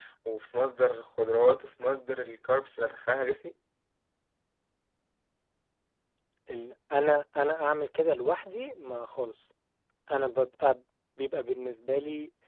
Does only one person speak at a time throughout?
Yes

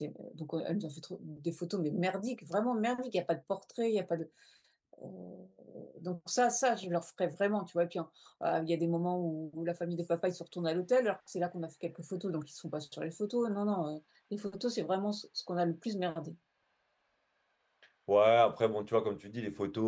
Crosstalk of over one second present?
No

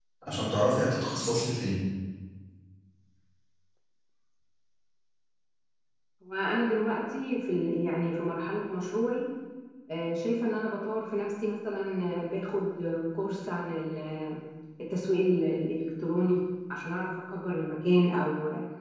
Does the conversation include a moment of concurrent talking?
No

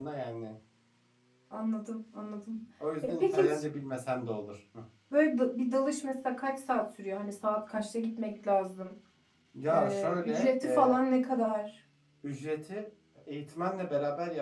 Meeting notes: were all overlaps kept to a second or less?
No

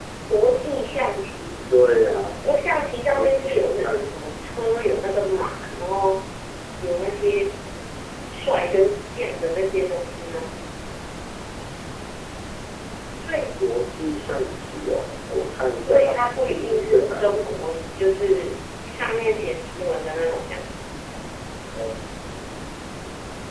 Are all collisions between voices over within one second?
No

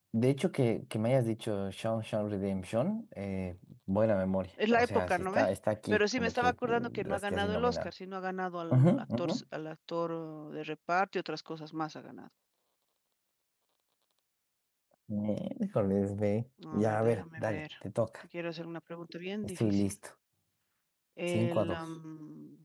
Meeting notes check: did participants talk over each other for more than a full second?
Yes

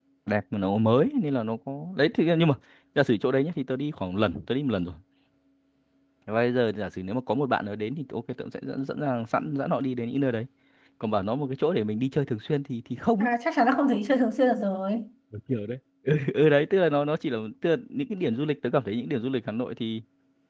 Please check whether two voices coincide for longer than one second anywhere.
No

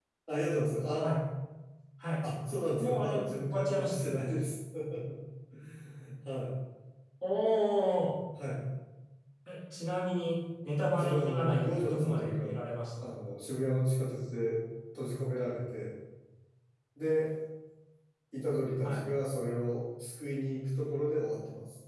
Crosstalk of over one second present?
Yes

